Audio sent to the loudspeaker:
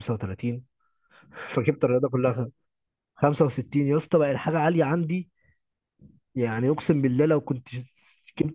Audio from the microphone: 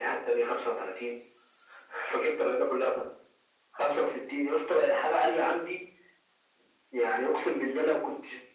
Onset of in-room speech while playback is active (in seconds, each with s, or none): none